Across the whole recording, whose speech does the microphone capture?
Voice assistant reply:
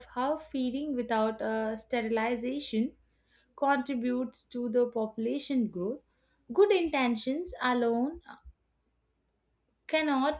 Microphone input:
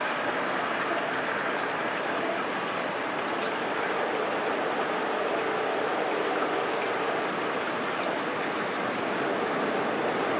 neither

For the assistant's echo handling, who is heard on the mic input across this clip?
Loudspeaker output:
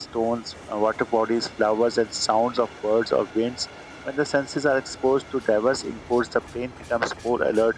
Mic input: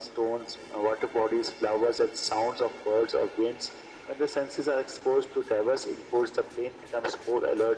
echo only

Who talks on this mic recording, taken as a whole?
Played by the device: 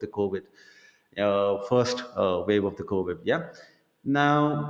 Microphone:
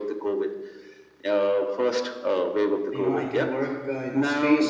both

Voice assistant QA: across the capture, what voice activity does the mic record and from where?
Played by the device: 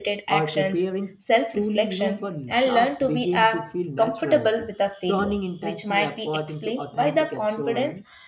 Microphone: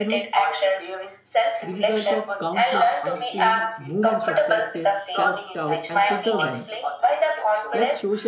both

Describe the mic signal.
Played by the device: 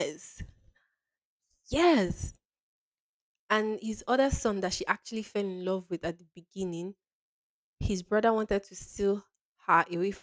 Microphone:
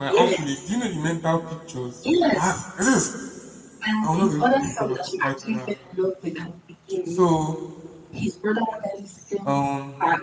both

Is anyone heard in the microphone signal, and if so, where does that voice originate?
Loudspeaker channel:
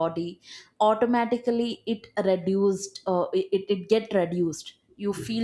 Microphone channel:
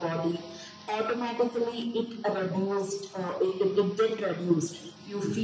echo only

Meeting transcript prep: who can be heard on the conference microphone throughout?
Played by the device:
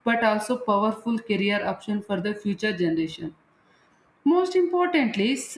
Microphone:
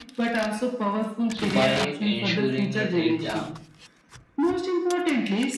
both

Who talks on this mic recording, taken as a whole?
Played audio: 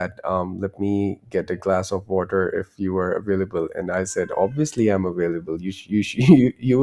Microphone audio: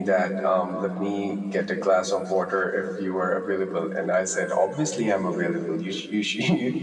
echo only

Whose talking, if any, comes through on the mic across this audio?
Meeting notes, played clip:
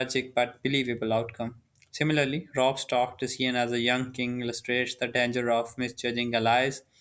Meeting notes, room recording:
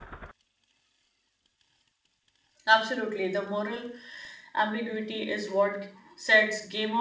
user only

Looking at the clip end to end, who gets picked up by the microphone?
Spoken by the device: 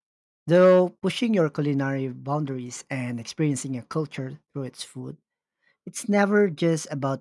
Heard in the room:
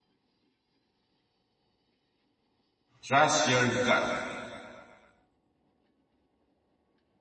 user only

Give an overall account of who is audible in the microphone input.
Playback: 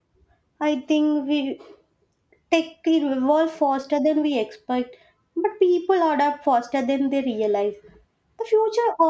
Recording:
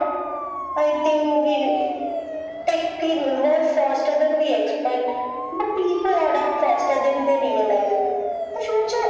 echo only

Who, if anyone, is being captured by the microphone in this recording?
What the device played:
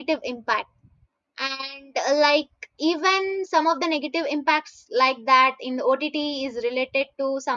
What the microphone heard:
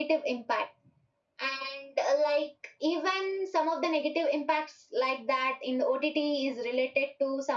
echo only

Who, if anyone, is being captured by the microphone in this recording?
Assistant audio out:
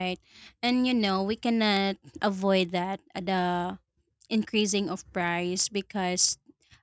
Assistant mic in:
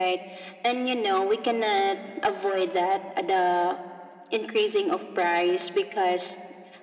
echo only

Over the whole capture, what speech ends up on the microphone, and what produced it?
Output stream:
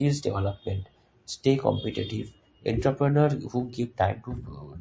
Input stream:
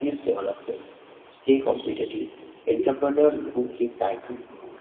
echo only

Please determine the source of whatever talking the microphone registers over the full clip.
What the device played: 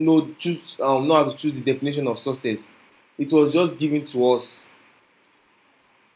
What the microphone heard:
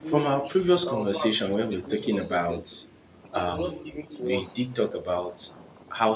both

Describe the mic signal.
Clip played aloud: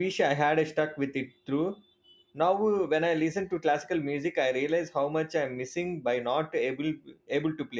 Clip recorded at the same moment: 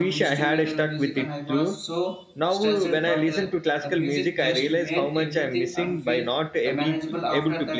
both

